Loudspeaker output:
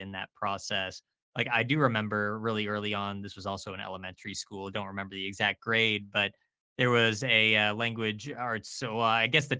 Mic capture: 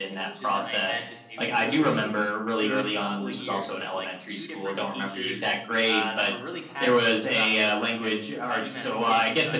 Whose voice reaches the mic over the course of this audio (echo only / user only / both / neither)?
both